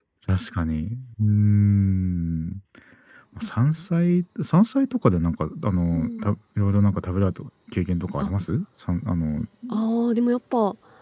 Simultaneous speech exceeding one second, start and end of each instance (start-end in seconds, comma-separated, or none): none